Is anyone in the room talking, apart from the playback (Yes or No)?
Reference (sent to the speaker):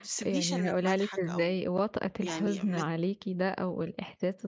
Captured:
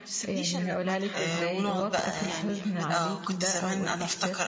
Yes